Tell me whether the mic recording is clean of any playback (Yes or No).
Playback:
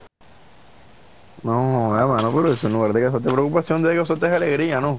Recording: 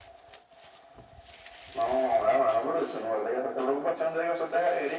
No